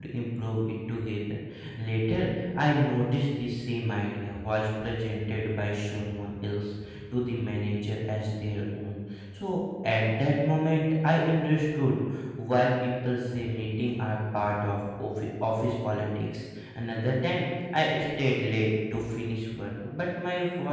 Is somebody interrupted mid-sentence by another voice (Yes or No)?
No